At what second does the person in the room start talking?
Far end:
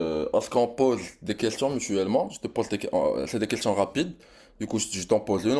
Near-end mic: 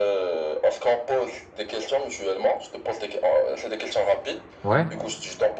4.6 s

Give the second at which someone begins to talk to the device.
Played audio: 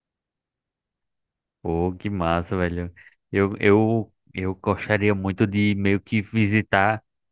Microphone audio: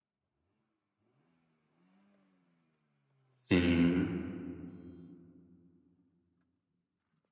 3.4 s

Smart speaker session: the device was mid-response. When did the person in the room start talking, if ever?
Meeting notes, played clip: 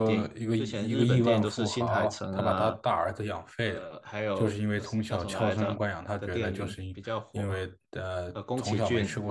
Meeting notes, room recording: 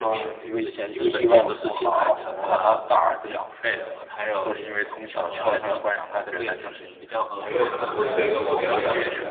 7.2 s

